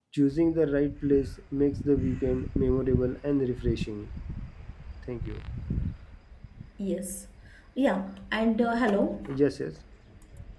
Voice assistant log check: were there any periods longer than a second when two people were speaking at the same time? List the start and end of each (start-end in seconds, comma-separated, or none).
none